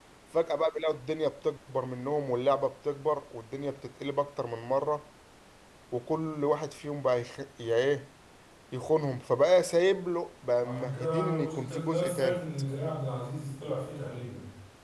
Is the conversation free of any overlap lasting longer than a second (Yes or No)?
No